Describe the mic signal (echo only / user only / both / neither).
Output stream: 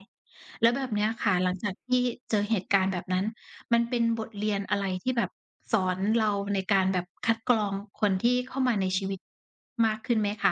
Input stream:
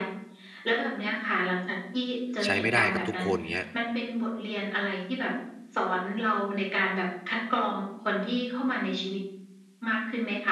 both